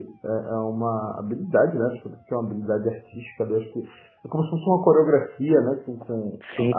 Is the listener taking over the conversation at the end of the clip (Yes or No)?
Yes